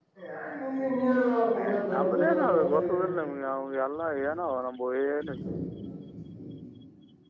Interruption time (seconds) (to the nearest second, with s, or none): 2 s